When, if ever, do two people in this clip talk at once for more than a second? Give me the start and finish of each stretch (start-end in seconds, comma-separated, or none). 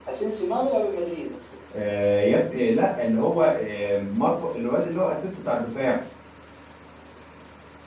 none